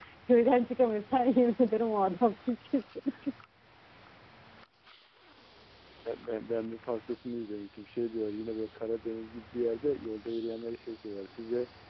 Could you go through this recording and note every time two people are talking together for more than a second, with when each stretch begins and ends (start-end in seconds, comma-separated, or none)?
none